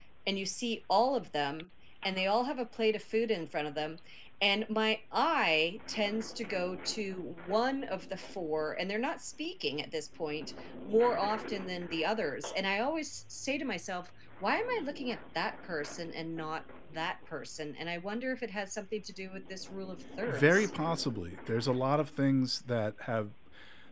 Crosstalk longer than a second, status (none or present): none